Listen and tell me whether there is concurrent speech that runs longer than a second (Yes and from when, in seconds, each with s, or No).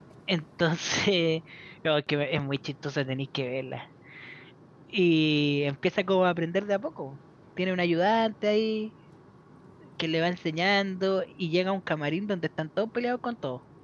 No